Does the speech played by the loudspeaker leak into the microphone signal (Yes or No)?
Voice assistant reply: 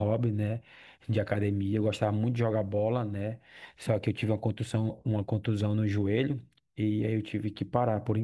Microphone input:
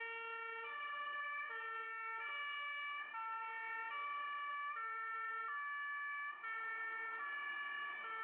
No